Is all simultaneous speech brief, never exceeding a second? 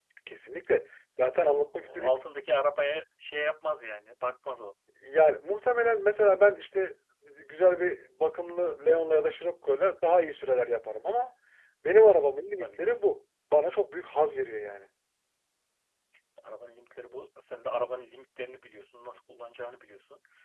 Yes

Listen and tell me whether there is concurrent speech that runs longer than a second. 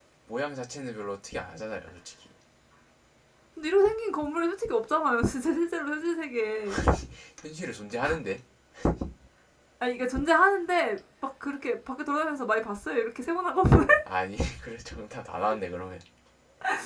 No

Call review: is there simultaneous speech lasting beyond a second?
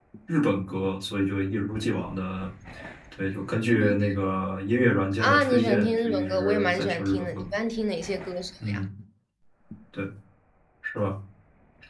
Yes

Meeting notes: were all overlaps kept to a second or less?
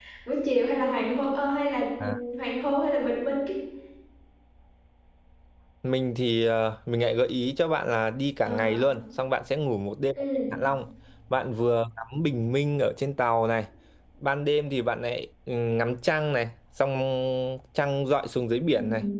Yes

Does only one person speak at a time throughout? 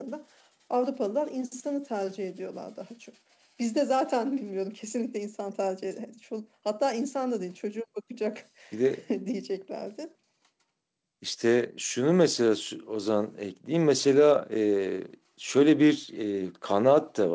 Yes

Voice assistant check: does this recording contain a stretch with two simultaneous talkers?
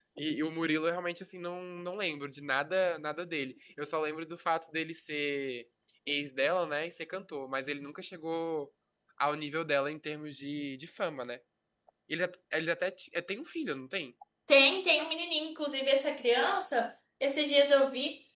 No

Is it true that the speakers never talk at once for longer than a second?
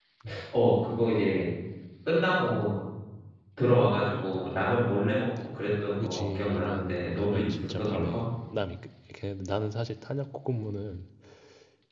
No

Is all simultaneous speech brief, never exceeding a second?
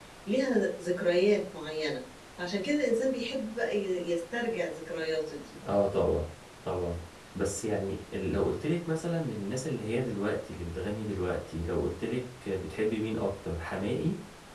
Yes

